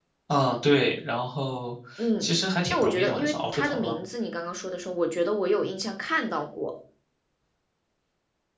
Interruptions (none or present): present